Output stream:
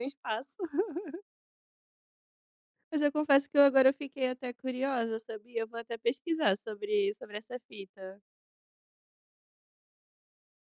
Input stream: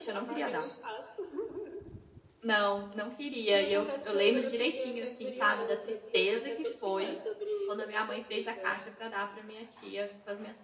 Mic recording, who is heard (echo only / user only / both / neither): both